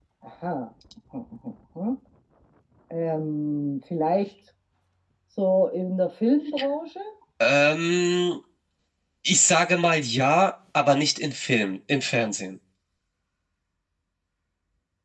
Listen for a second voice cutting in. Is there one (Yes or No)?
No